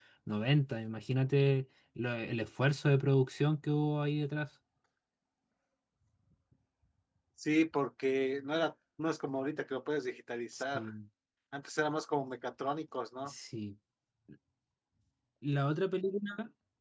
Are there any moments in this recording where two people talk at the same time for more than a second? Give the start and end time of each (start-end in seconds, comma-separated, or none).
none